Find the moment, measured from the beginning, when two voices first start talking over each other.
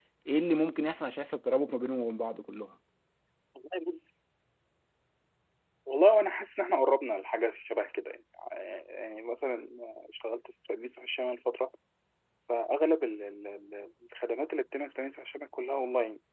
none

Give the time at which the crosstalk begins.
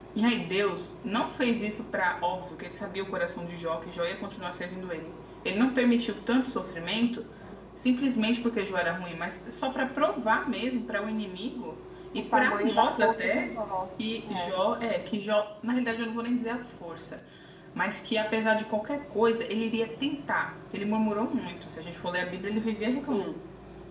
12.2 s

